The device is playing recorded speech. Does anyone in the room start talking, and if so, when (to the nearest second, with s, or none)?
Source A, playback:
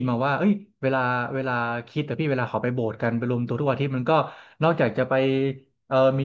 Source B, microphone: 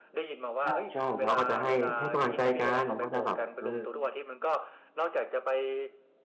1 s